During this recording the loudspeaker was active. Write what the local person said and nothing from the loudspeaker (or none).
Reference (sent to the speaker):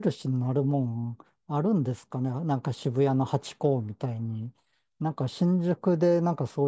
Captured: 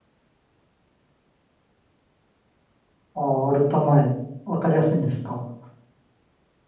あ、アルタ前、わかりやすいんですか。